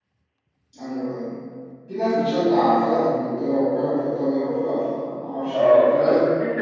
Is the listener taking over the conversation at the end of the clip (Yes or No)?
Yes